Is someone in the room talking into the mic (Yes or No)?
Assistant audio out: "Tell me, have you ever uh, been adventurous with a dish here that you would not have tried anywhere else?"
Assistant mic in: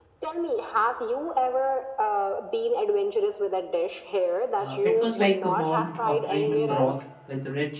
Yes